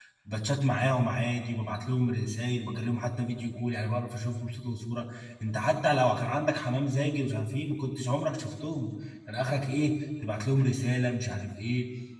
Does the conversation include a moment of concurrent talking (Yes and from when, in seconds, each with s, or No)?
No